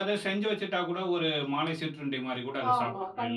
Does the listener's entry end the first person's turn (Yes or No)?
Yes